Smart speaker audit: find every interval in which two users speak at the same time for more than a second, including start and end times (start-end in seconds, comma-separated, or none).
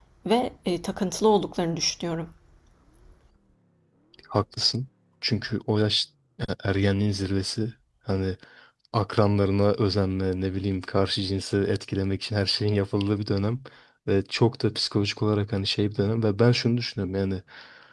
none